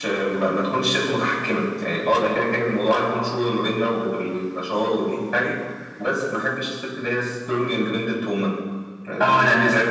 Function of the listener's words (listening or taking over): taking over